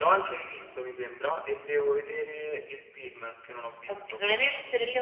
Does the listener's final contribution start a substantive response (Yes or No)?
Yes